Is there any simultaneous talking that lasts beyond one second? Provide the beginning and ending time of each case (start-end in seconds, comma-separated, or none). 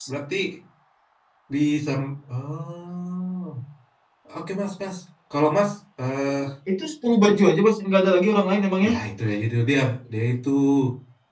none